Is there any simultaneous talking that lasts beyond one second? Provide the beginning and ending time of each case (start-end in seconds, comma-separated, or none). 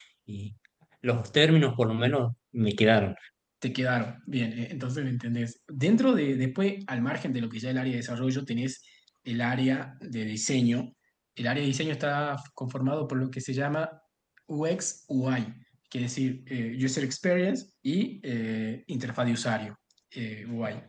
none